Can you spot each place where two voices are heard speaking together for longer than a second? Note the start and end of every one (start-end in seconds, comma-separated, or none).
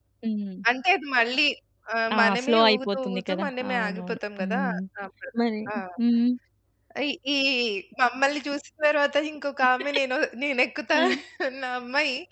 2.1-4.6